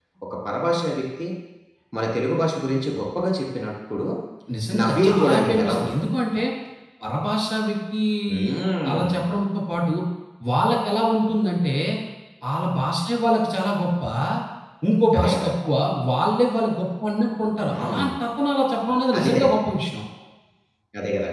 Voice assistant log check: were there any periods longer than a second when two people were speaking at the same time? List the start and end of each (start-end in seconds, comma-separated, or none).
4.8-6.0